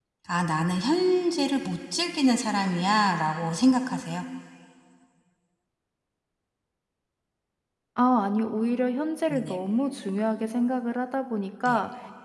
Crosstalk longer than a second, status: none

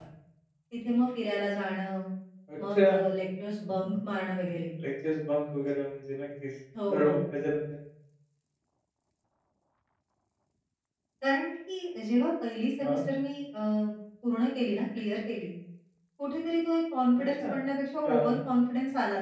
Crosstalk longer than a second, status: none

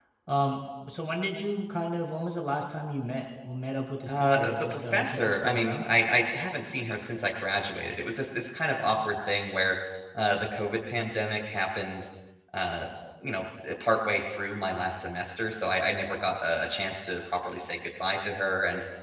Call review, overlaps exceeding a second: present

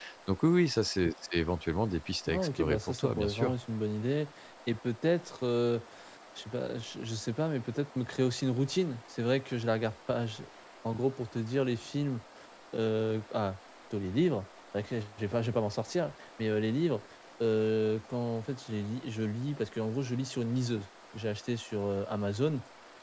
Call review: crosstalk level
present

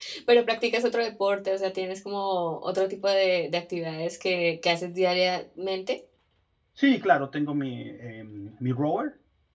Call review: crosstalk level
none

